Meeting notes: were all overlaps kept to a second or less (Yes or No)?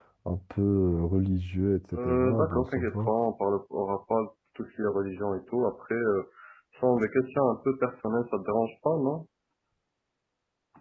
No